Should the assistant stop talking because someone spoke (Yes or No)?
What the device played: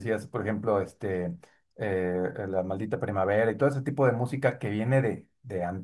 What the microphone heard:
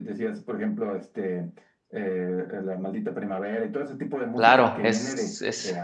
Yes